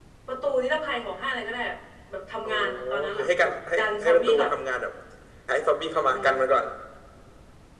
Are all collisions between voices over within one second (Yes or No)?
No